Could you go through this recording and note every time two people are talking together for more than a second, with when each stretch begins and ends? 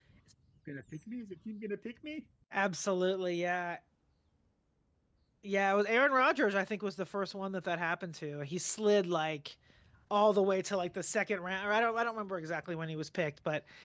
none

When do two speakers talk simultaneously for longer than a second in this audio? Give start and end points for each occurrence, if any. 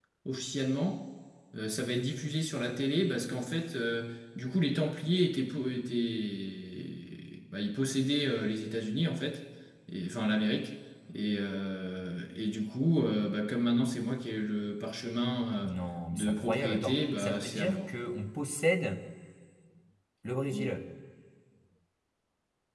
16.1-17.9

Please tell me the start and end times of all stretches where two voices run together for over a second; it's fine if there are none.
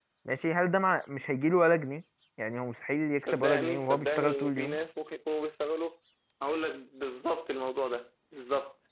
3.2-4.8

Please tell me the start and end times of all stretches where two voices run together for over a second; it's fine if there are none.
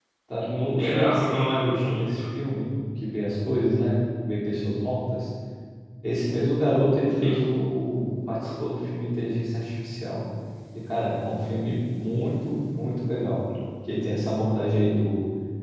0.8-2.2

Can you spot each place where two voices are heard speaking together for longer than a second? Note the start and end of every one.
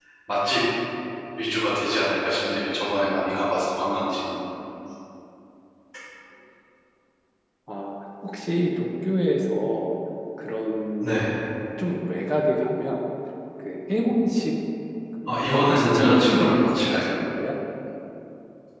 15.5-17.1

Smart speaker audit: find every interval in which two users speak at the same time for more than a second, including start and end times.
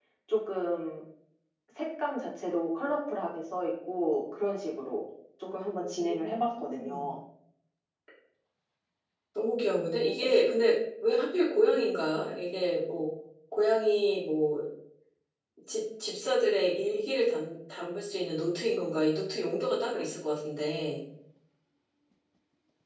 5.8-7.1

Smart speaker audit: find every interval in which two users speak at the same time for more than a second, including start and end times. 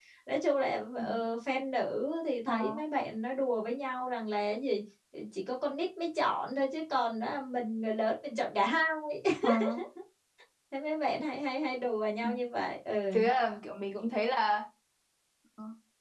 none

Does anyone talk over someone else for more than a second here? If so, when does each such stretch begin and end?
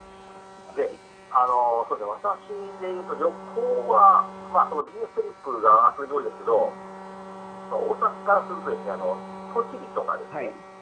none

